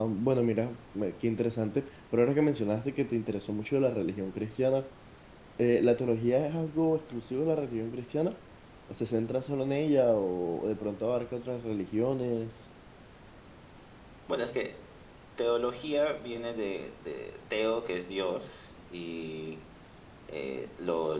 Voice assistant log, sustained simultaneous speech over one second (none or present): none